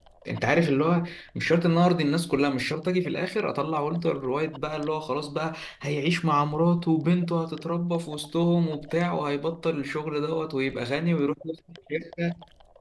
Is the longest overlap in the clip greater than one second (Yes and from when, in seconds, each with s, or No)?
No